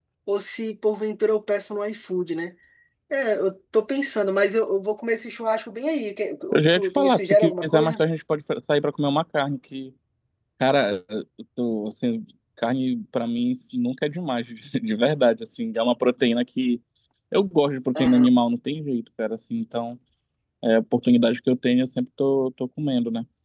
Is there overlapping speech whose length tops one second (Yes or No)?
Yes